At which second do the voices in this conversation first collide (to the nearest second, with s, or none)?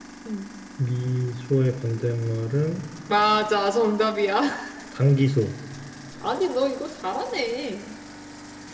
none